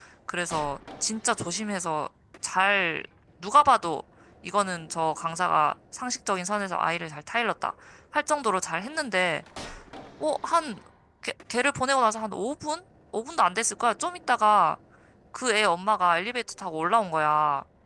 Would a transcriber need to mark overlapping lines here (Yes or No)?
No